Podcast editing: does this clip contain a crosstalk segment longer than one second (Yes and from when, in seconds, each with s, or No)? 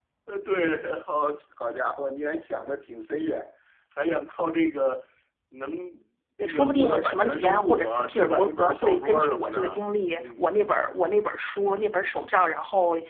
Yes, from 6.4 s